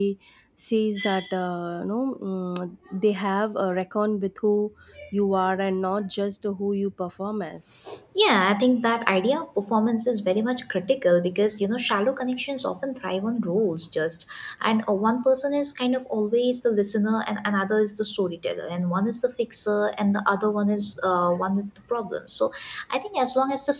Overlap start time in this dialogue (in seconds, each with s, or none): none